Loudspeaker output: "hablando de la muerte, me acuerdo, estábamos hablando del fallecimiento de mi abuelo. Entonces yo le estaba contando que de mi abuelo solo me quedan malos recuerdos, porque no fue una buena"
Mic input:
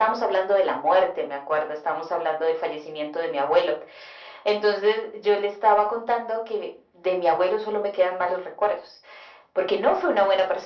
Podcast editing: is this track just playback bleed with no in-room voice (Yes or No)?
Yes